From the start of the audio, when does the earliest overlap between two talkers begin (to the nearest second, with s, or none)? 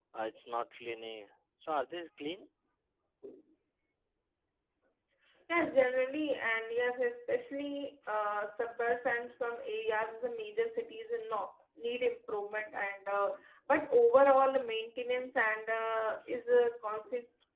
none